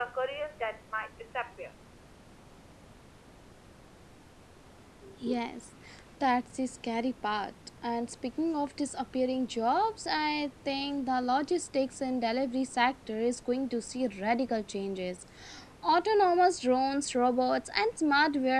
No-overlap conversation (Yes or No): Yes